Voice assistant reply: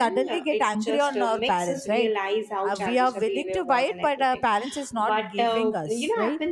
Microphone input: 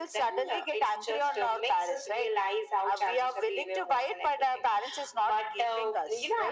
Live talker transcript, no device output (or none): none